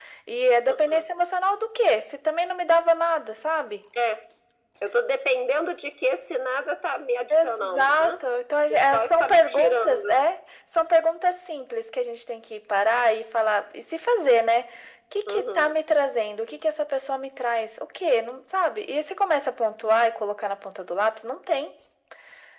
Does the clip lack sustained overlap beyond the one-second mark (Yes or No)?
No